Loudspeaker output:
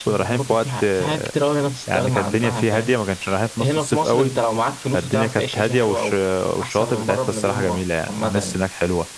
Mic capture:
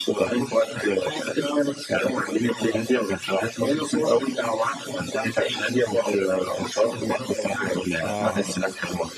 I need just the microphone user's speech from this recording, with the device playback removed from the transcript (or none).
اه